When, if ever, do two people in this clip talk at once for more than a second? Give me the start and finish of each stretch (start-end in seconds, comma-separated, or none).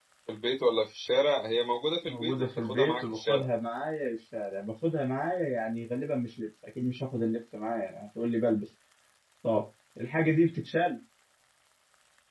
2.1-3.5